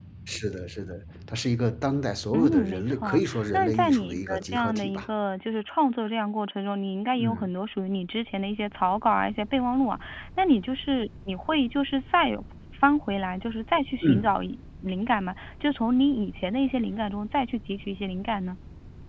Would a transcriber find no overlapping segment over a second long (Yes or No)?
No